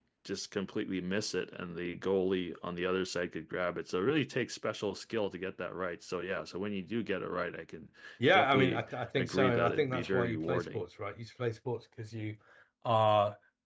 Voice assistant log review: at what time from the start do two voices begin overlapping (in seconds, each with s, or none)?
8.3 s